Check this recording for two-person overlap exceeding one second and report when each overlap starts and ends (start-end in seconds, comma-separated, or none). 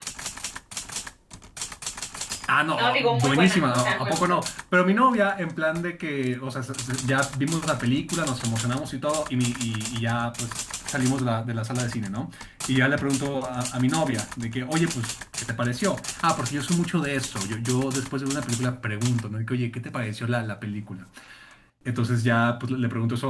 2.8-4.2